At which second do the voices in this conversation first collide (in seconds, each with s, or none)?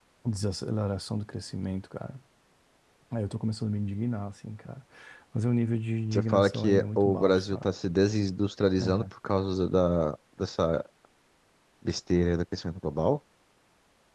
6.1 s